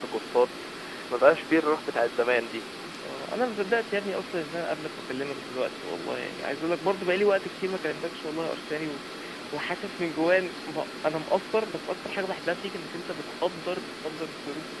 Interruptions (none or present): none